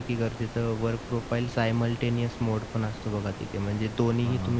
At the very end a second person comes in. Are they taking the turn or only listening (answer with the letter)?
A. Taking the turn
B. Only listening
B